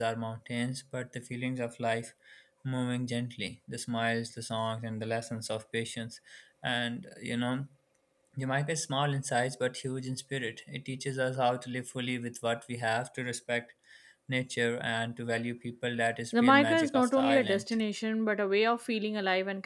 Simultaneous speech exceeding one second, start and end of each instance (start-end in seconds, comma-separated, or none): 16.4-17.6